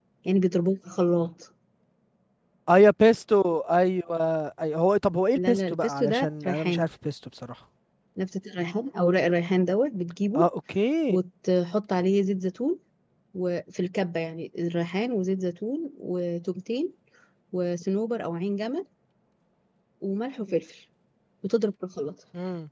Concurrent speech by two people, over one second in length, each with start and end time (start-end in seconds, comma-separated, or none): 5.3-6.8